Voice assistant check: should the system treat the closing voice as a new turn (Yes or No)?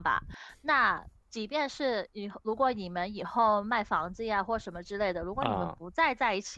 No